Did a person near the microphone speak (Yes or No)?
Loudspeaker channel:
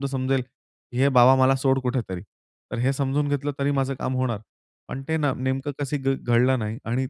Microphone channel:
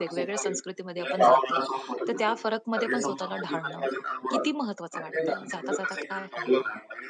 Yes